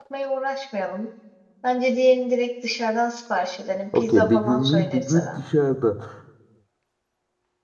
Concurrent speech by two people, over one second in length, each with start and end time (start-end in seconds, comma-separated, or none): 4.0-5.4